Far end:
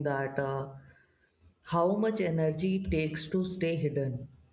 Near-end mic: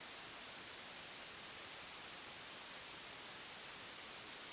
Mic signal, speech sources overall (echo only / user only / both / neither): neither